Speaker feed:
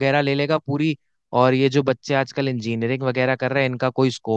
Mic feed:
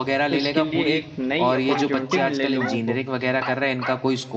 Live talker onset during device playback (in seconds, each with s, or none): 0.3 s